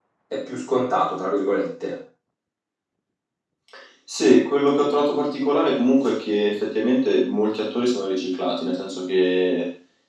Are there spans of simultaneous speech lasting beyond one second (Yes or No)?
No